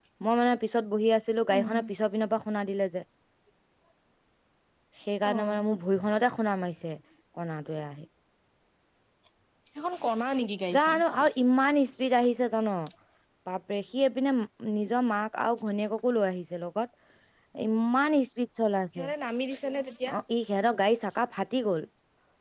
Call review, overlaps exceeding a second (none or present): none